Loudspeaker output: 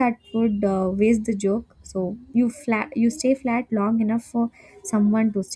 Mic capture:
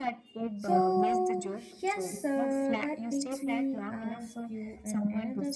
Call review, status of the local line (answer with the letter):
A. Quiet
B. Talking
B